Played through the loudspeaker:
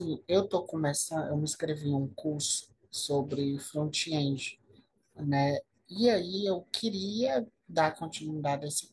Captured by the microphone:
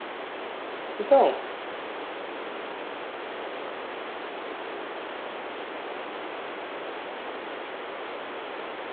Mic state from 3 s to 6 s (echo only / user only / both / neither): neither